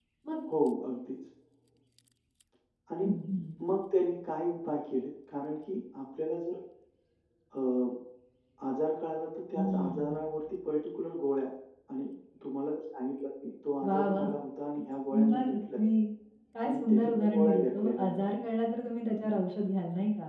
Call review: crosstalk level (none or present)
present